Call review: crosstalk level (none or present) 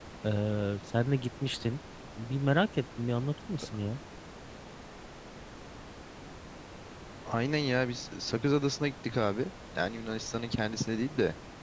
none